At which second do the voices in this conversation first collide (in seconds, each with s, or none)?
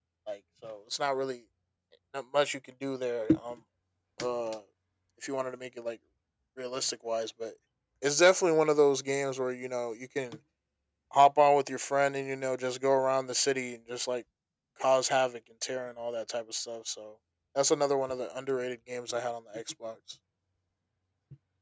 none